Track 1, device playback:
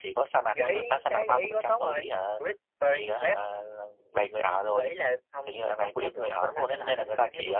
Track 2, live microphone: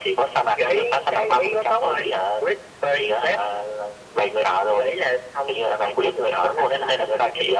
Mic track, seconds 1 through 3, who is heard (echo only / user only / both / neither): echo only